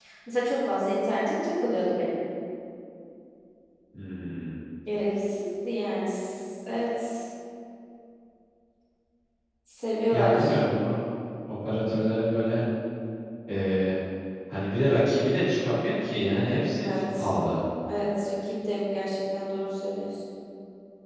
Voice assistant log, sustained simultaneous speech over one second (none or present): none